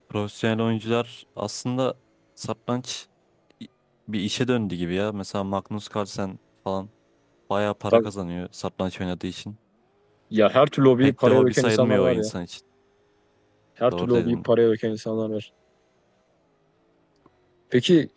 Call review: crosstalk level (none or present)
present